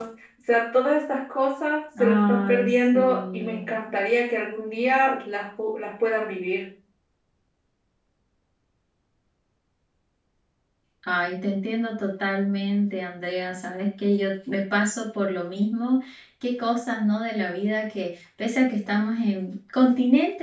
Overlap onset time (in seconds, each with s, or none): 2.0 s